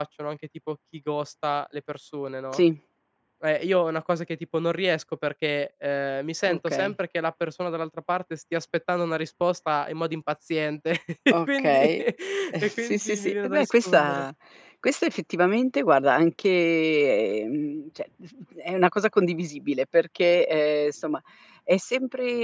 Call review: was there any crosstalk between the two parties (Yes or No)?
Yes